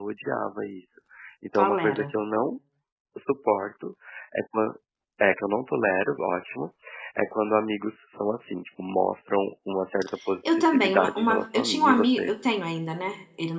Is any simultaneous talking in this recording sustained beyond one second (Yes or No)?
Yes